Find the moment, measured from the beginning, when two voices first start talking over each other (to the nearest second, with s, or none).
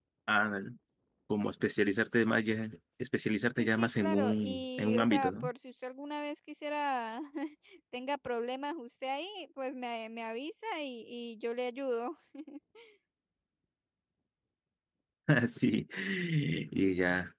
4 s